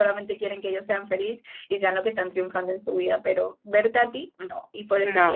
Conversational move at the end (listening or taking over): listening